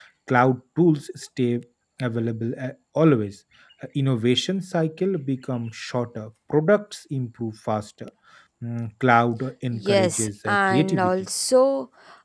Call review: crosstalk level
present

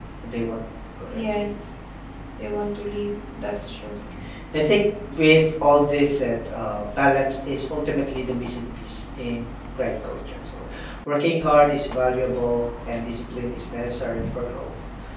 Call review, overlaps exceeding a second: none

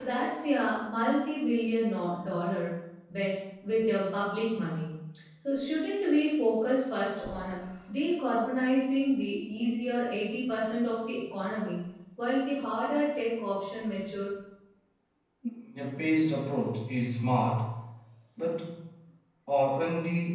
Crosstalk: none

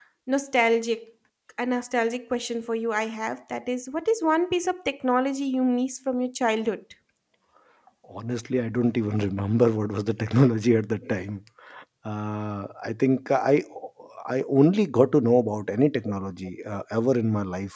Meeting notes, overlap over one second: none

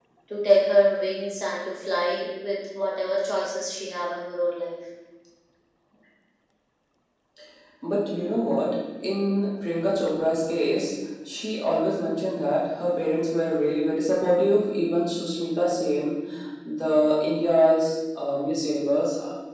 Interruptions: none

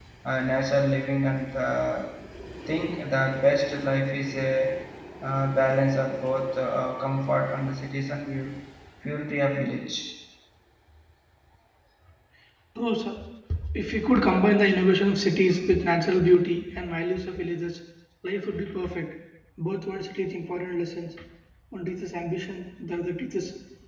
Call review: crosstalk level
none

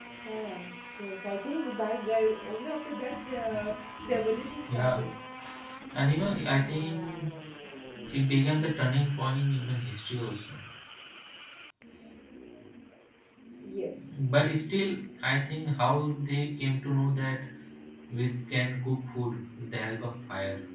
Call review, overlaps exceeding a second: none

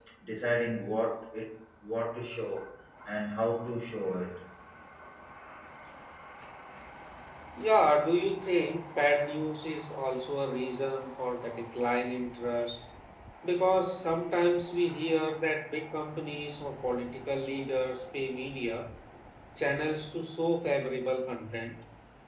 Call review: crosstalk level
none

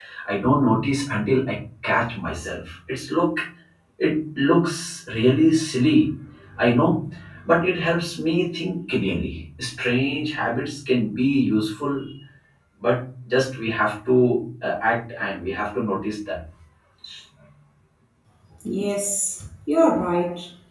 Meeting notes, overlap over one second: none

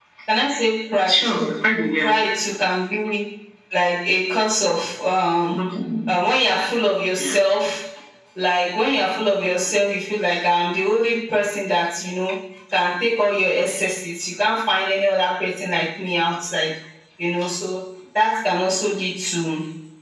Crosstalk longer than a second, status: none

